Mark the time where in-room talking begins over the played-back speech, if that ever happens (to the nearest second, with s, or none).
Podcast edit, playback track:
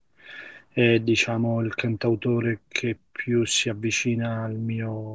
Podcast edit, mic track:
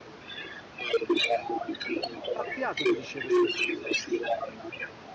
2 s